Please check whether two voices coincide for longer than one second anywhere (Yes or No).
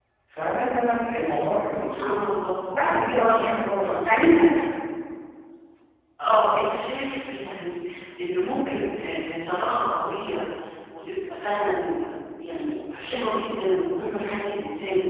No